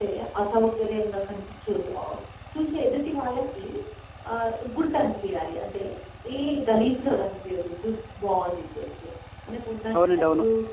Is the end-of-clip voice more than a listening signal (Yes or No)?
No